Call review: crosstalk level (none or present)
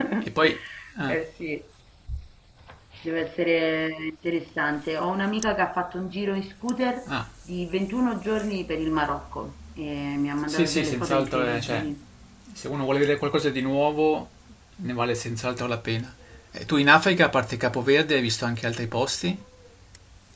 present